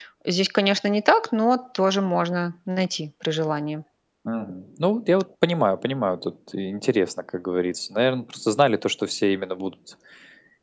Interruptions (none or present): none